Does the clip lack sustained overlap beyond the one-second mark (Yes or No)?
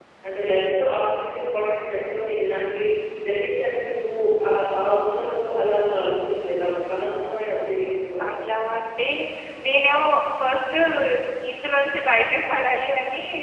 Yes